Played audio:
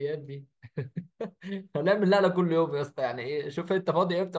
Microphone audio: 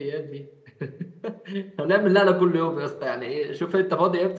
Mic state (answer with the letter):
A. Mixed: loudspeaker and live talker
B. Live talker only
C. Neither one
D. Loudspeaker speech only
D